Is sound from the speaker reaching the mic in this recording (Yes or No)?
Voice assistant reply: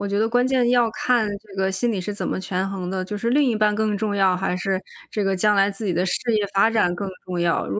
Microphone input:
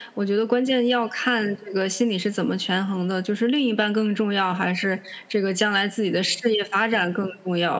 Yes